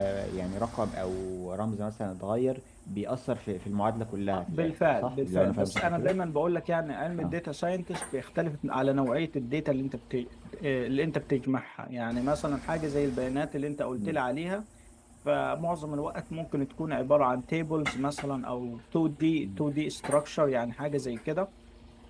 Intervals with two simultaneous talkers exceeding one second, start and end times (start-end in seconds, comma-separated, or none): 4.3-6.2